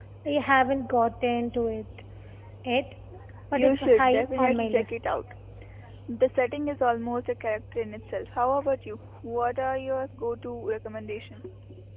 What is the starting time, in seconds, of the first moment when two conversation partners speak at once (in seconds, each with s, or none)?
3.5 s